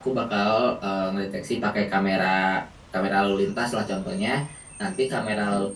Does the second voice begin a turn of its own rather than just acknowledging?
No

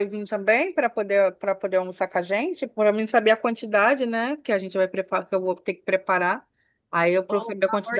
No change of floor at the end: No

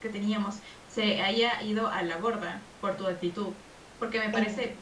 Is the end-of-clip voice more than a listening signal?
No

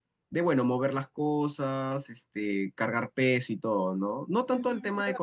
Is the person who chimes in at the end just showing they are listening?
No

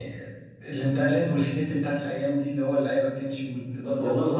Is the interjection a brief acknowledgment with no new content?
No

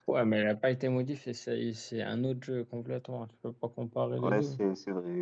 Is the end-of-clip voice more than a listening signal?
Yes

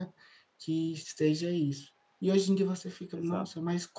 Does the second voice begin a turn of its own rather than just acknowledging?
No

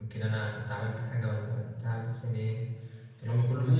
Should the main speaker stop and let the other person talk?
Yes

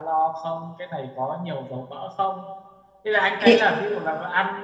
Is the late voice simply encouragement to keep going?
Yes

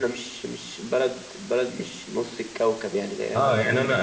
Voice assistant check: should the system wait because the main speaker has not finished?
No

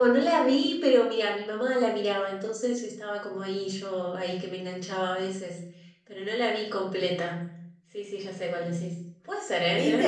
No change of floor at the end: No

